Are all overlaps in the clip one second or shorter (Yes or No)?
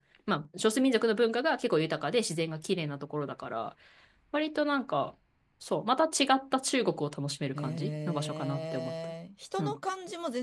No